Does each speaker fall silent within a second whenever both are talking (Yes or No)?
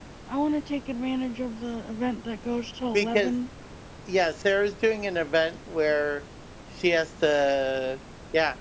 Yes